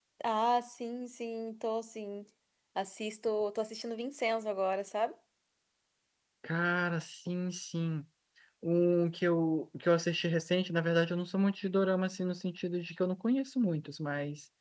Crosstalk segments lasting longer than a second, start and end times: none

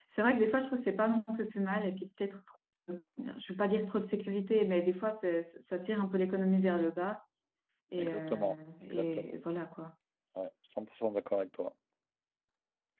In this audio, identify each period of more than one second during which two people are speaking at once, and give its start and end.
8.0-9.3

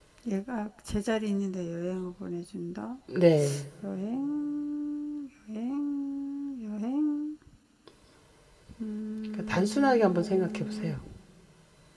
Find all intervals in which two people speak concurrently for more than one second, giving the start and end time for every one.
9.5-10.9

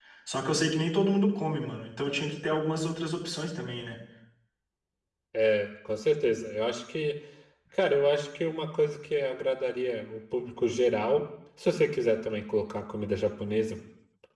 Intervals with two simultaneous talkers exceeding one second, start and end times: none

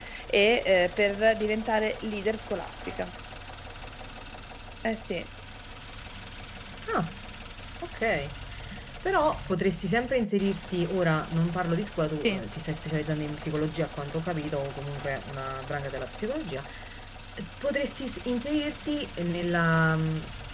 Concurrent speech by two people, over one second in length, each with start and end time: none

